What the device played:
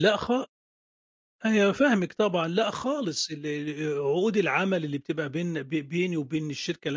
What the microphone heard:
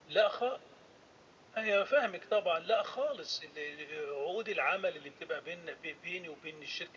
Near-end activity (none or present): none